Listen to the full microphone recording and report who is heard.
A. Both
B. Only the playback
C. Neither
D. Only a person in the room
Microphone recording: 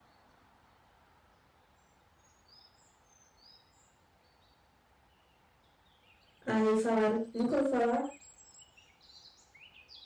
D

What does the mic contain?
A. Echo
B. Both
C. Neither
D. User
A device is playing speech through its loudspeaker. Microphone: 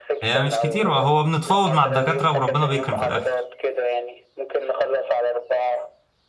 B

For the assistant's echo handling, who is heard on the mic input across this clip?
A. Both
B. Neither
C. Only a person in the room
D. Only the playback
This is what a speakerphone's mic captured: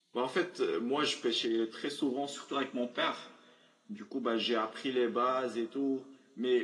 D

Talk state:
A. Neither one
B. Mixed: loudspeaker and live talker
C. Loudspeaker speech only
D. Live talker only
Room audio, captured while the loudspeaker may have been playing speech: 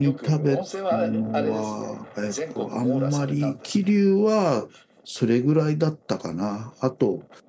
B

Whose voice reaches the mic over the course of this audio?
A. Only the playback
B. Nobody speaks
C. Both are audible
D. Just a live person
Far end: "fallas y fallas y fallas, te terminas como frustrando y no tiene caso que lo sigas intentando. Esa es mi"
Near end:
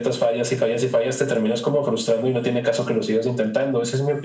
A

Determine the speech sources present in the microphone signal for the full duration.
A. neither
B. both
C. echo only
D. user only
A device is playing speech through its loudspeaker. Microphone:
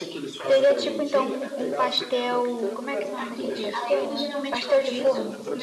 B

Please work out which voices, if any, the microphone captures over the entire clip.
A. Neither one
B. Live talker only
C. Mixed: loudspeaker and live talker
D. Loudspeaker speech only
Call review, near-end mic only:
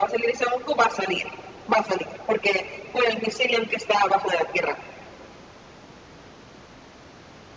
D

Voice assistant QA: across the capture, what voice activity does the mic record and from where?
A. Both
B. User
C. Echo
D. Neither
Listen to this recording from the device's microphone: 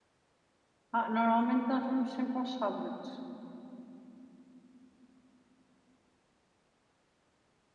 B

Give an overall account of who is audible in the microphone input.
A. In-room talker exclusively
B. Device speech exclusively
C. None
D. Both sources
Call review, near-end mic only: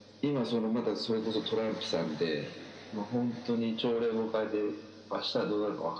B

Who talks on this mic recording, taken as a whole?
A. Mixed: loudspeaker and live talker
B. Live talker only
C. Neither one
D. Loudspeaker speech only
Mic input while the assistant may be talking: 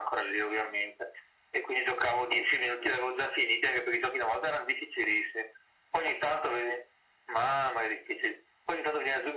D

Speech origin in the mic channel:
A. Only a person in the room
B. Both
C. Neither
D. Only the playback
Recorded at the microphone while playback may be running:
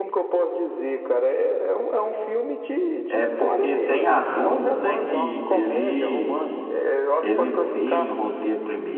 B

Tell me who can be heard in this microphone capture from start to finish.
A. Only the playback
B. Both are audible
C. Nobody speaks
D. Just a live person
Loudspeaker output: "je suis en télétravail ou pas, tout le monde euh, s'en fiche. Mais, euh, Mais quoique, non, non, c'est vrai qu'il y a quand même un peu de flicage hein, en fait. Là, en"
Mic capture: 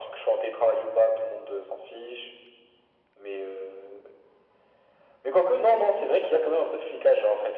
A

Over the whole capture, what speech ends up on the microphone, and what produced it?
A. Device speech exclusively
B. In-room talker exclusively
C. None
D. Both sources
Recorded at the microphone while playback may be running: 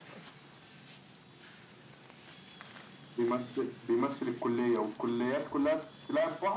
A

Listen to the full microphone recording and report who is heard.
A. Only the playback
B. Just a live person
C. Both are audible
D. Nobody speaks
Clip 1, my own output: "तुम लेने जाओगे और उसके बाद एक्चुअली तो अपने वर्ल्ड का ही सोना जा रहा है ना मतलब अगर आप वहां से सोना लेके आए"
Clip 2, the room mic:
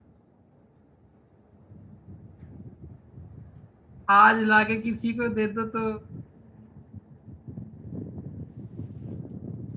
B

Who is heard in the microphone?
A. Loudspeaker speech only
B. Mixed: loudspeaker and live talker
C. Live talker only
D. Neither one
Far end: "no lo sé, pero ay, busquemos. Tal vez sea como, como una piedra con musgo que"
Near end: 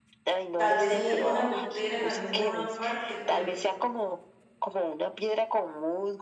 B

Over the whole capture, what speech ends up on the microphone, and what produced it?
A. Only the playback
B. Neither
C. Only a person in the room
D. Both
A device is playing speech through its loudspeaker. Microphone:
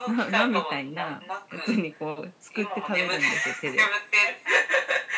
D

